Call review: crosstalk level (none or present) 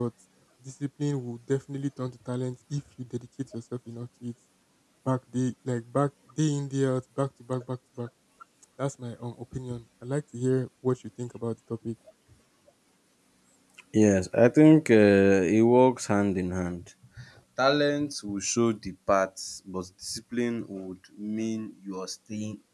none